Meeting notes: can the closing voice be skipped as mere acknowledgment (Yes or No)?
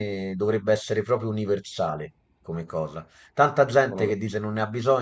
Yes